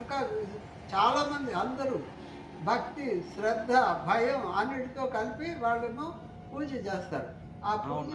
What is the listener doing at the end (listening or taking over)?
taking over